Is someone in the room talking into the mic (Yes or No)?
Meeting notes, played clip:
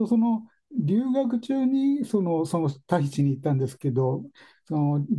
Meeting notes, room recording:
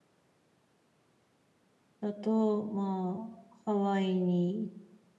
Yes